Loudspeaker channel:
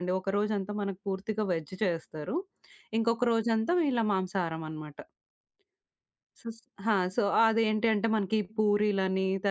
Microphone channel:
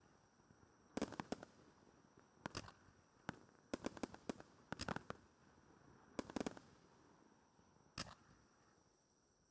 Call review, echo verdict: none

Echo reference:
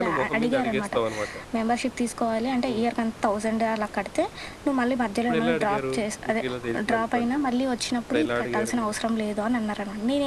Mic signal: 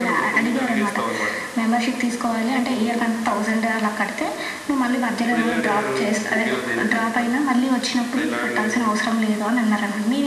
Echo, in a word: present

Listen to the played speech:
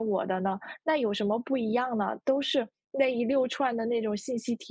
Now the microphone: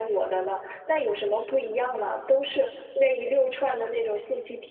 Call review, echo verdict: present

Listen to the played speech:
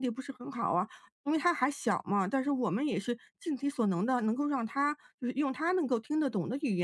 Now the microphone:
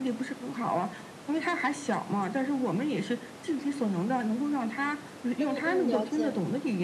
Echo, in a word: present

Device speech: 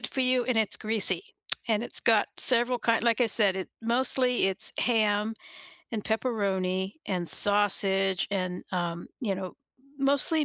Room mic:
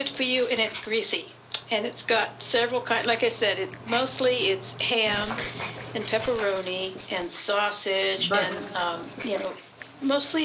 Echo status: present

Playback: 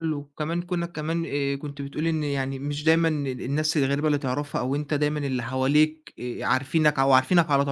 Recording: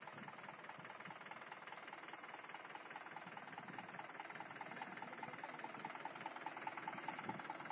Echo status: none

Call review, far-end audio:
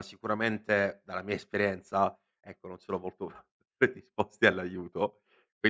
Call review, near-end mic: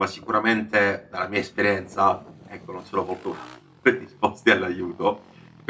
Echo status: present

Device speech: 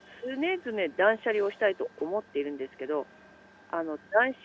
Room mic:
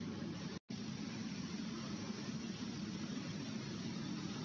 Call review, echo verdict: none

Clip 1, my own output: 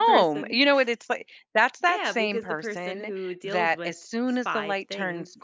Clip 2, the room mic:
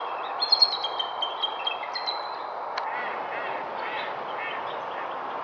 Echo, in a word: none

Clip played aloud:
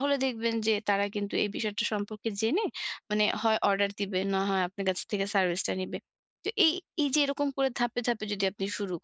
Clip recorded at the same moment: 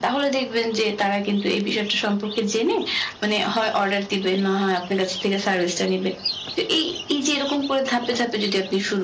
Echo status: present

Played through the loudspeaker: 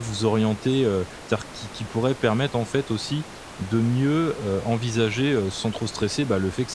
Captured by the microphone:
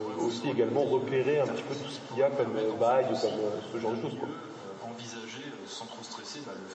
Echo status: present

